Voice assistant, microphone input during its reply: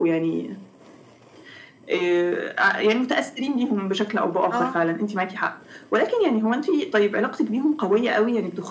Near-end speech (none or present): present